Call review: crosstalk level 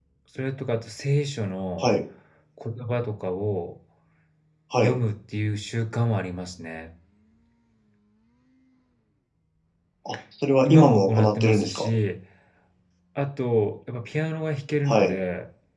present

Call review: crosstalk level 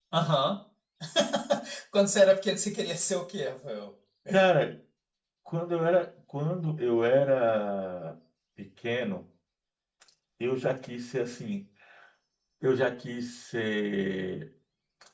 none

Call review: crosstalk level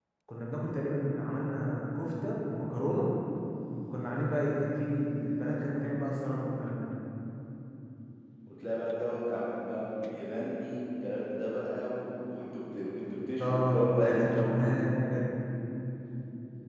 present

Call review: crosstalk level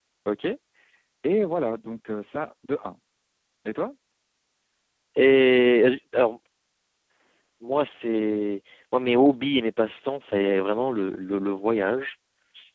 none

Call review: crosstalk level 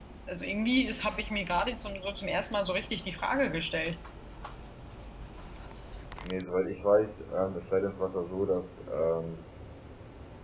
none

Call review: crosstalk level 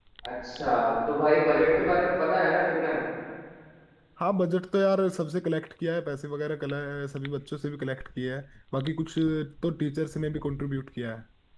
none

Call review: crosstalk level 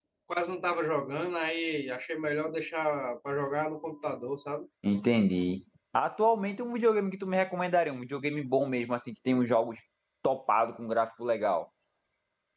none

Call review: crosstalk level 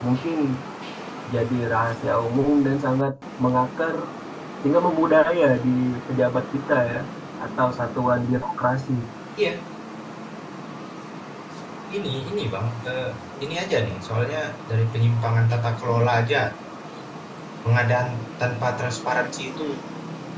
none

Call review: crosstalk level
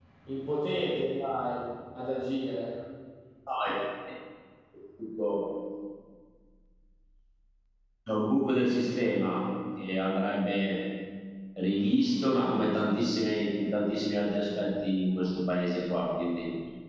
none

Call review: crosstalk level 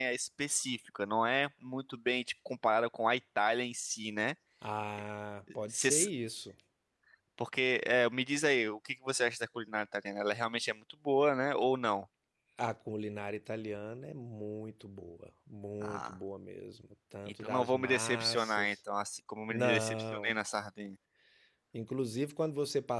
present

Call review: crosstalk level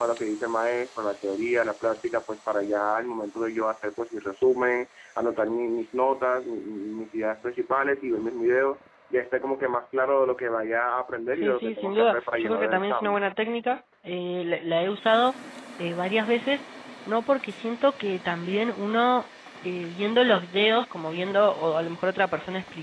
present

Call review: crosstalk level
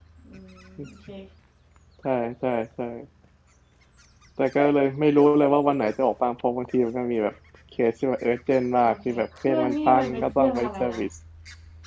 present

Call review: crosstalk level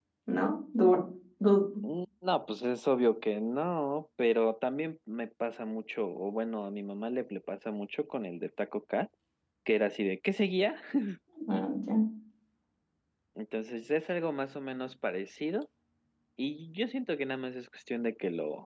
none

